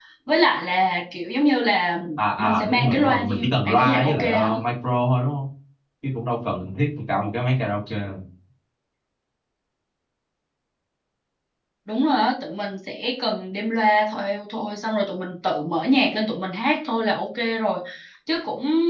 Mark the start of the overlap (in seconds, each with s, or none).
2.4 s